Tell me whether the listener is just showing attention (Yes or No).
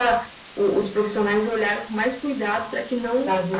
Yes